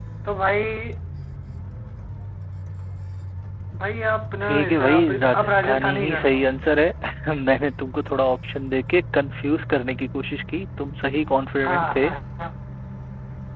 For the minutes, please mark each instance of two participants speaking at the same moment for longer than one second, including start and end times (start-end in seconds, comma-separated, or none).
4.4-6.4